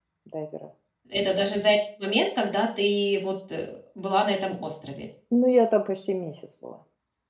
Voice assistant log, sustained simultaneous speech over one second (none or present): none